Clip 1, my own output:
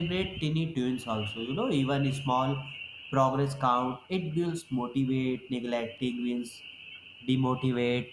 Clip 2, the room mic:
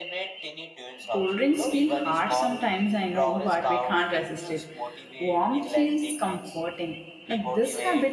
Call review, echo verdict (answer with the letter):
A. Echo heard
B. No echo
A